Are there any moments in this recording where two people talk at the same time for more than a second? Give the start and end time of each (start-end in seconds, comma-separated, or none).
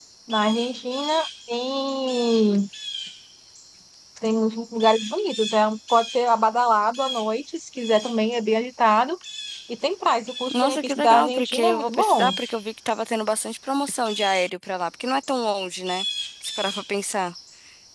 10.5-12.4